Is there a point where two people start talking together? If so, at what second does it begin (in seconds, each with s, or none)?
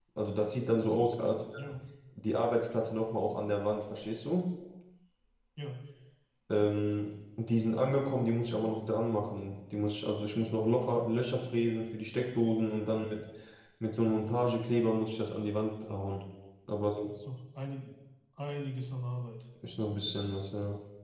none